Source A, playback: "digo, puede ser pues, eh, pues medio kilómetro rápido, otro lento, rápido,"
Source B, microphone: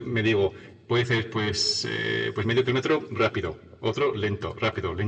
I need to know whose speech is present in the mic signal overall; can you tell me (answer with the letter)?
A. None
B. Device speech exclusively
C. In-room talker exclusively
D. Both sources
B